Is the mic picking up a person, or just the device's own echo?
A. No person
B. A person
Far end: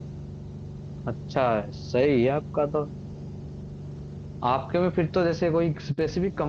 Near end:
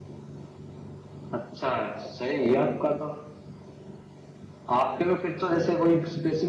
A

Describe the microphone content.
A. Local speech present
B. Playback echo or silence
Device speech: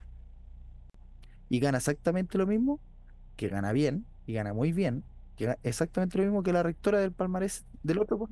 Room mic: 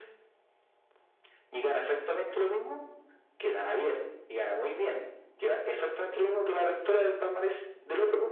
B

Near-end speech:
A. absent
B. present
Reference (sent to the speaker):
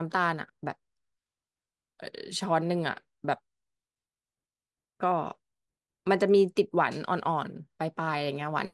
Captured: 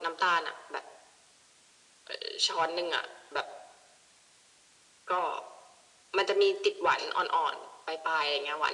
A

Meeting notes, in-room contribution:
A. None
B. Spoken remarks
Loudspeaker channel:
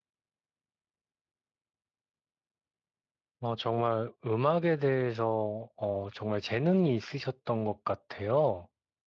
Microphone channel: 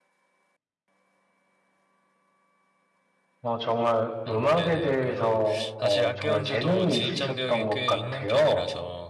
B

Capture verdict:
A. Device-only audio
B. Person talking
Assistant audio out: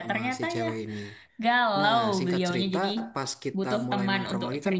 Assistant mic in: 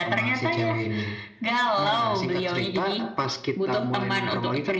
A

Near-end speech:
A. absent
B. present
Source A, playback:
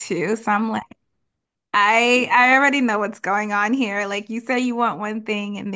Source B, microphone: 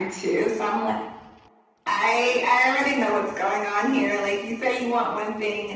A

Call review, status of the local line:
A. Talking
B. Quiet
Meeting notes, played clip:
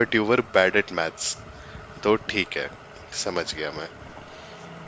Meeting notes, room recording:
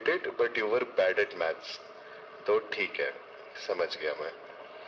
B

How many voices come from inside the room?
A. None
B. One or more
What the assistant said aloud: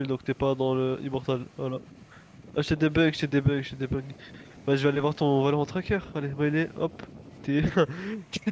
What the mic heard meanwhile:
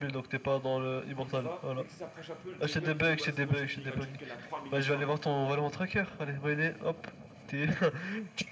B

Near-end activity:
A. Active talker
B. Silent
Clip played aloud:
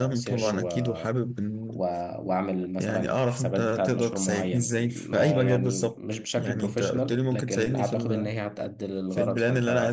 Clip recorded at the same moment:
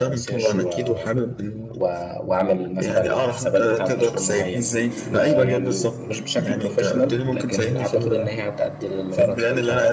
B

